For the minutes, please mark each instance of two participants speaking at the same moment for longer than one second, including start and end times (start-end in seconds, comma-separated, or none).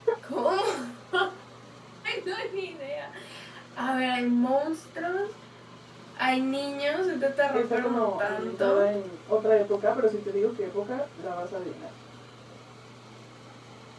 7.5-8.9